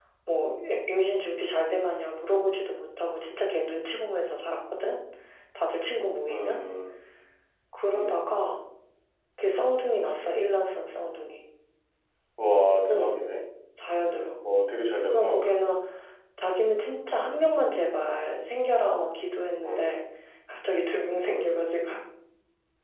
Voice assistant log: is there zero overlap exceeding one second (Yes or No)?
Yes